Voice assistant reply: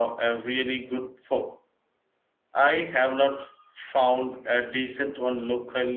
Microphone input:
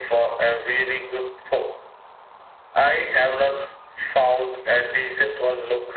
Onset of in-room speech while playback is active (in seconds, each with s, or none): none